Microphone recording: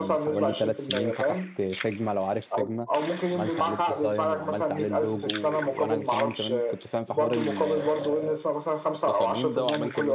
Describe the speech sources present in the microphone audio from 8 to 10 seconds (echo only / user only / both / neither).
both